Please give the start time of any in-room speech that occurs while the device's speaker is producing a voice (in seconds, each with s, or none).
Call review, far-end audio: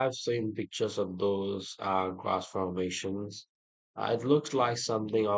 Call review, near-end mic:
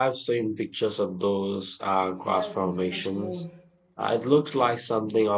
2.2 s